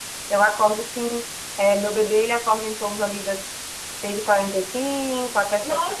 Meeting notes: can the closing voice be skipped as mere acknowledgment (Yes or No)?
No